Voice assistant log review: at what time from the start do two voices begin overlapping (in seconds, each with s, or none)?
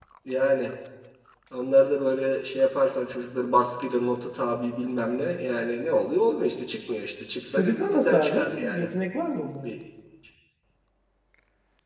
7.6 s